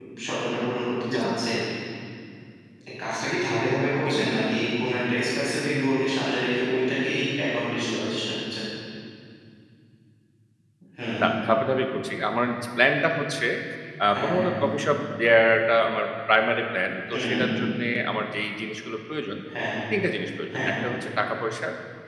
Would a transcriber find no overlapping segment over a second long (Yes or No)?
Yes